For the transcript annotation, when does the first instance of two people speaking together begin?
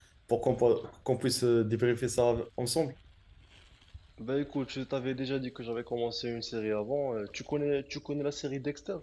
none

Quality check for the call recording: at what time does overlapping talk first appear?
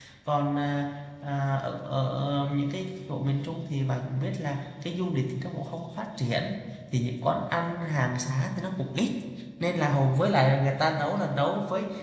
none

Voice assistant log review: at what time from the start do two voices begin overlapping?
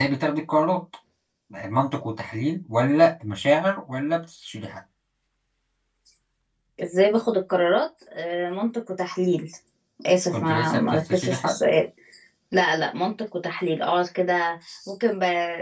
10 s

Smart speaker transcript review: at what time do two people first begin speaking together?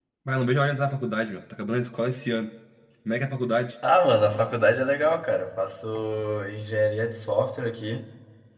none

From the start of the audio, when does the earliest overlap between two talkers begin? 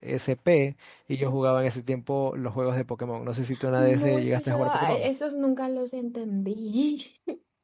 4 s

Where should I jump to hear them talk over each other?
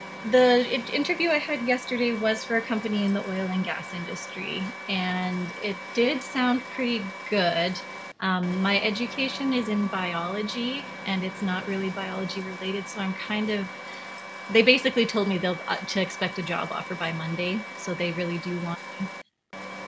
none

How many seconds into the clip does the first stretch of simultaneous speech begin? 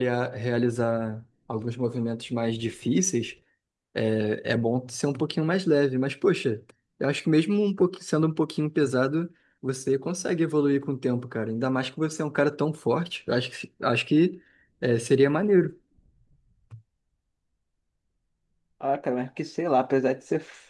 none

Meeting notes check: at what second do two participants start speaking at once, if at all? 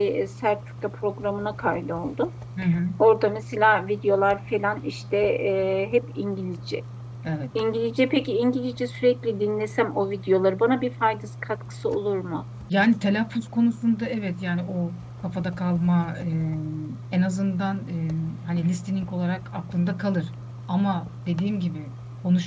none

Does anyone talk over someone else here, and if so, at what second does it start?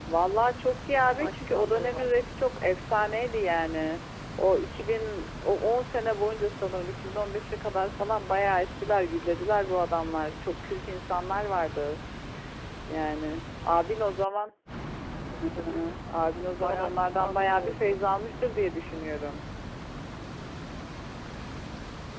1 s

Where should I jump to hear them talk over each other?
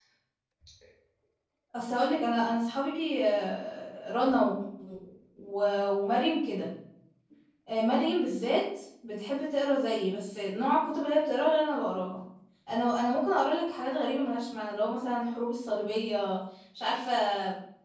none

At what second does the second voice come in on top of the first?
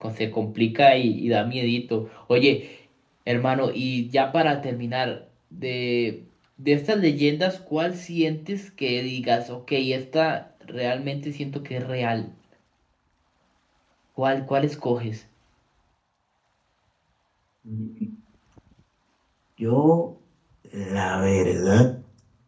none

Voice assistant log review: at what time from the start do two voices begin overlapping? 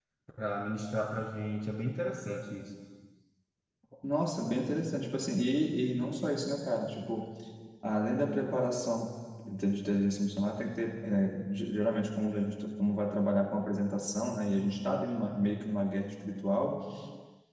none

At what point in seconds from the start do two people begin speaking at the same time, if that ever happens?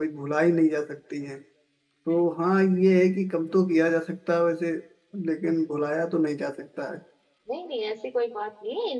none

